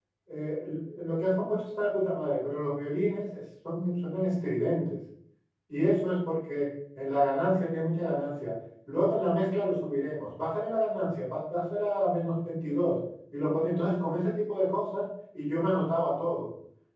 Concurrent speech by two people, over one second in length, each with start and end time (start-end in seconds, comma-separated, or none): none